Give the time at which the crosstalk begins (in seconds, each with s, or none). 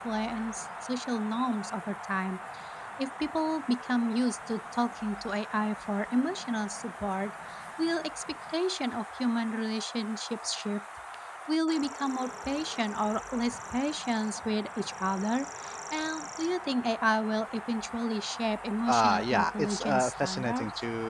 18.8 s